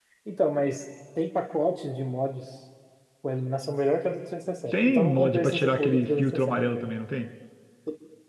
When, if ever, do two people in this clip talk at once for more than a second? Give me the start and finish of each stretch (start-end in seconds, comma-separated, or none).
4.7-6.9